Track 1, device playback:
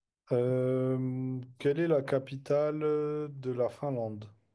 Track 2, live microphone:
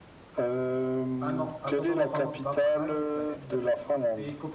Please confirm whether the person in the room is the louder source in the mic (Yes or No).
No